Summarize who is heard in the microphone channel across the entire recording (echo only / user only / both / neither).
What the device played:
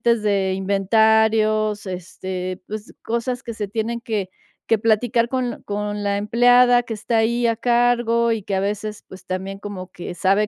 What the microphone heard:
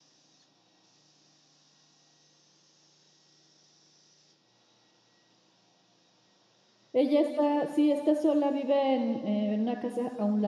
user only